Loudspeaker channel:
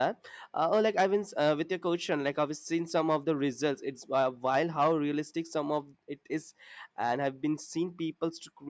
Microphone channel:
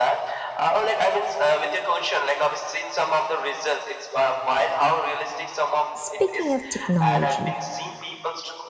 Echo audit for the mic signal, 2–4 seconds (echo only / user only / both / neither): echo only